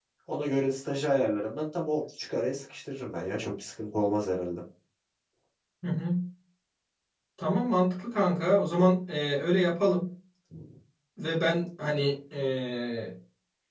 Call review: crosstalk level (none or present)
none